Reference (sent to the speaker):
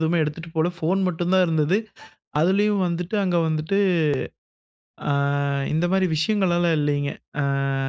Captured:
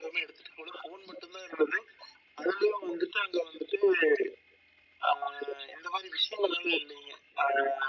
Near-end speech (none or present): none